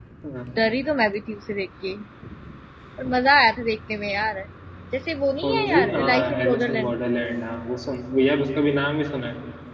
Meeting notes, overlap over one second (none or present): present